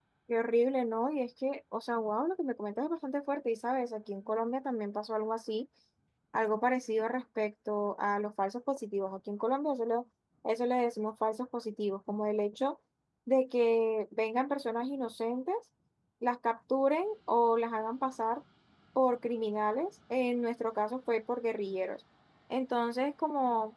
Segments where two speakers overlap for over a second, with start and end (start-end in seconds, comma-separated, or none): none